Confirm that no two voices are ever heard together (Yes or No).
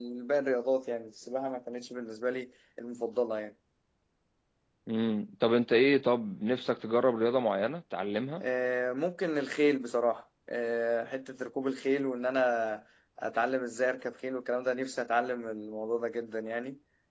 Yes